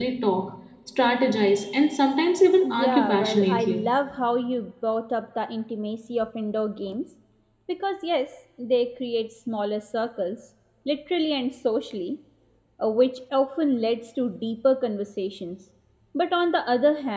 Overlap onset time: 2.6 s

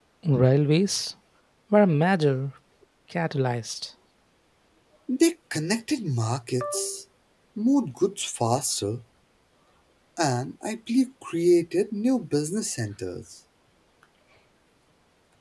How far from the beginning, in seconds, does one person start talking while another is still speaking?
none

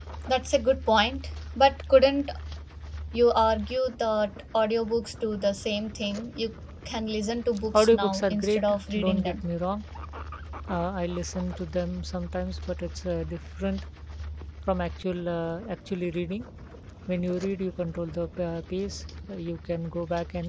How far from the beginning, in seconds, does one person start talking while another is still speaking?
7.7 s

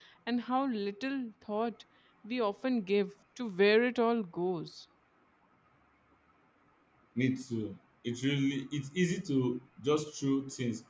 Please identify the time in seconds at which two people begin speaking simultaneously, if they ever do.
none

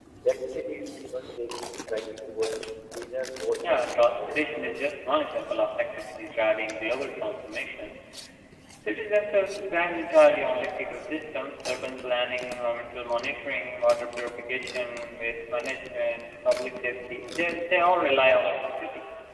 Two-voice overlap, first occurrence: 3.6 s

